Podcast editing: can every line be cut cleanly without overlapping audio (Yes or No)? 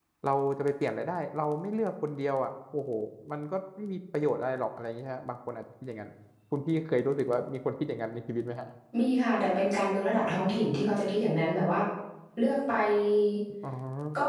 Yes